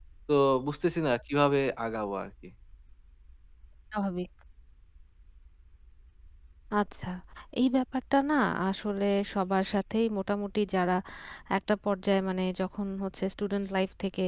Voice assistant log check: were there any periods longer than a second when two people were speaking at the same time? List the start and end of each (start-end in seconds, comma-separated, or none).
none